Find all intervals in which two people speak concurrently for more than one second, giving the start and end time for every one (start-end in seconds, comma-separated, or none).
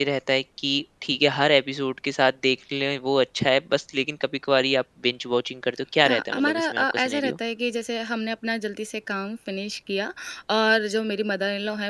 6.0-7.3